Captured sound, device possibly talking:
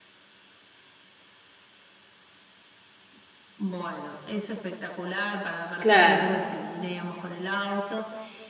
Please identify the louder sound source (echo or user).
user